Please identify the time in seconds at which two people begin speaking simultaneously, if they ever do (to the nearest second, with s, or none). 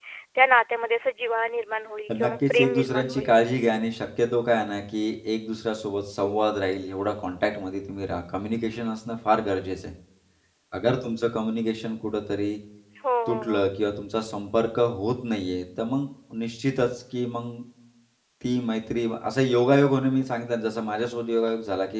2 s